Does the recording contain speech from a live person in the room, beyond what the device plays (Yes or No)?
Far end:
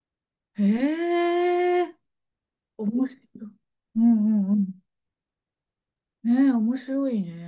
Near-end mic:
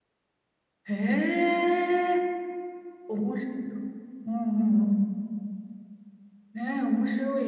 No